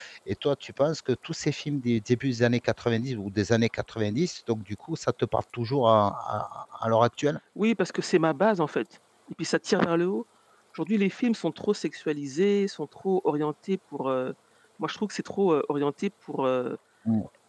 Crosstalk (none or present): none